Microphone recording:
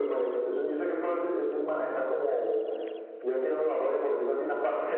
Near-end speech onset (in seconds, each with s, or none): none